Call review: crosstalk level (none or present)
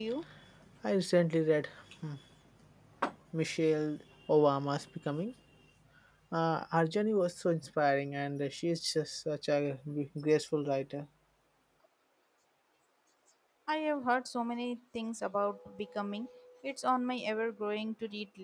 none